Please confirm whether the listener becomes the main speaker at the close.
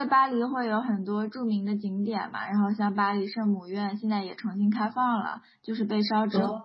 No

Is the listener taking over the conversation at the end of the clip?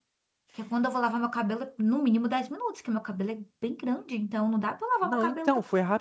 Yes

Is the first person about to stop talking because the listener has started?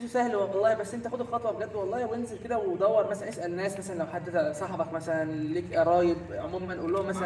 Yes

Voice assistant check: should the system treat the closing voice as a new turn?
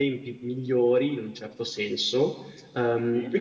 No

